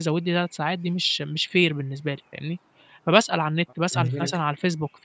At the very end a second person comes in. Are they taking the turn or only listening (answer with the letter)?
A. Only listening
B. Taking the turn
A